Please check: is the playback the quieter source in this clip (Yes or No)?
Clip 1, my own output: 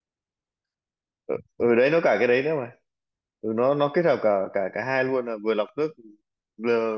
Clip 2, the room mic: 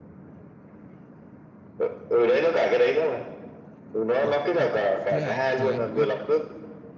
No